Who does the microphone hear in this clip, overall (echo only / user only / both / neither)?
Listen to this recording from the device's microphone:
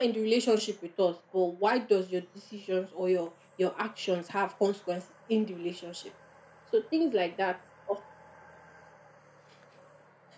echo only